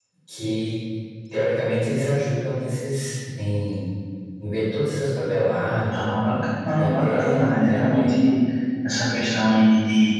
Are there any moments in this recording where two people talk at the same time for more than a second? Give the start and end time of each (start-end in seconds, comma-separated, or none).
6.8-8.1